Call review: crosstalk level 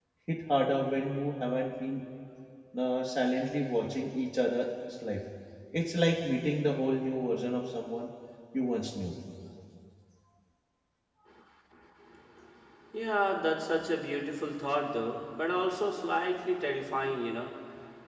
none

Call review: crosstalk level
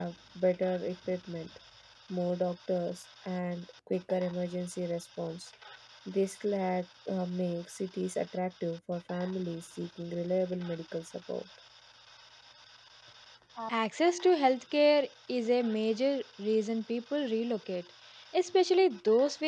none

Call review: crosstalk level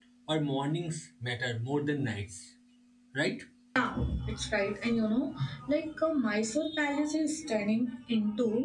none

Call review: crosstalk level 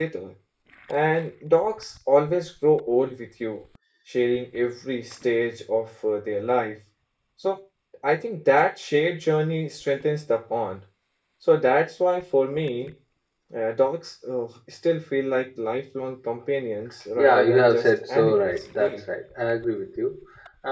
present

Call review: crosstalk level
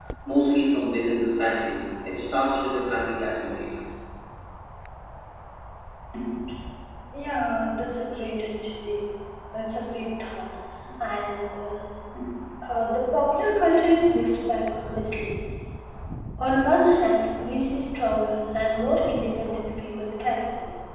none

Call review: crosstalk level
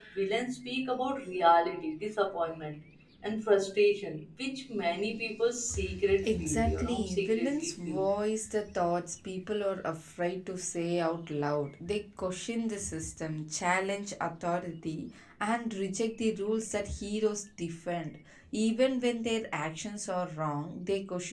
present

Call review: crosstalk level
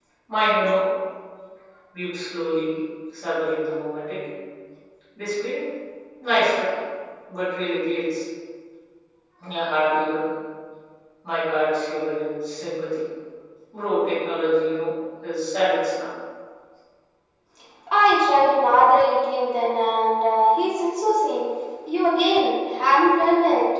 none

